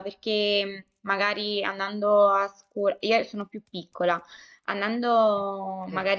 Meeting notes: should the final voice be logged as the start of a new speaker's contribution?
No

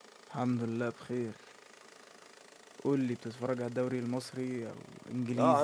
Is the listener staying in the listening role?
No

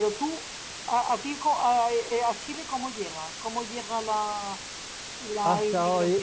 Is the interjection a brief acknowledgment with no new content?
No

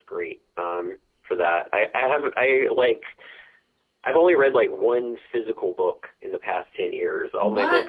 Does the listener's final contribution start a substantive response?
No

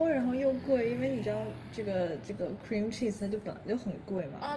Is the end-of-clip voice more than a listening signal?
Yes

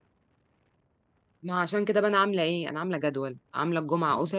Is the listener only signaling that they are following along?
Yes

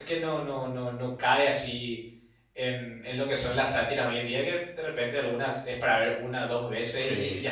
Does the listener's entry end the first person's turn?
No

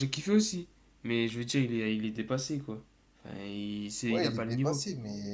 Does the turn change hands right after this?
Yes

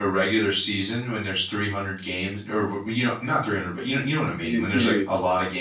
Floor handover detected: No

